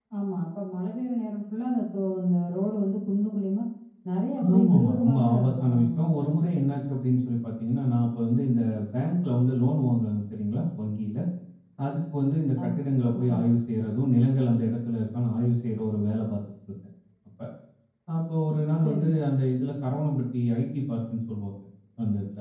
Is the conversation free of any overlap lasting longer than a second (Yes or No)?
No